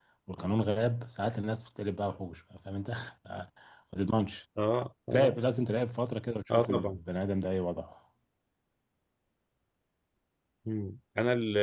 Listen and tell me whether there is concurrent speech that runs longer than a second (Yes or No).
No